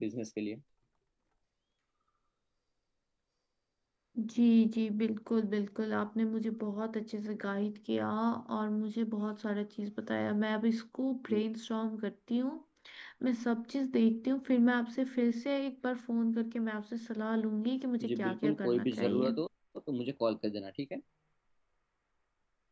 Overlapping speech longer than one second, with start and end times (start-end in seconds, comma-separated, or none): 18.1-19.3